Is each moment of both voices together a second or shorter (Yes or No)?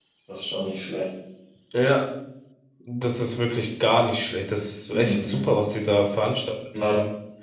Yes